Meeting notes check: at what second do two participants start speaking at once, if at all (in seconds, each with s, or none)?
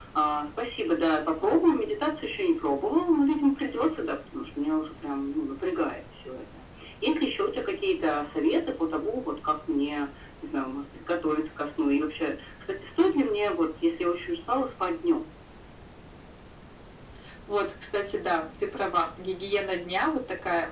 none